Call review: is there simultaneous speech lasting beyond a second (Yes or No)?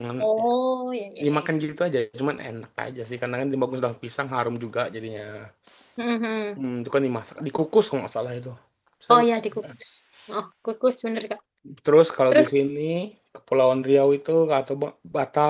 No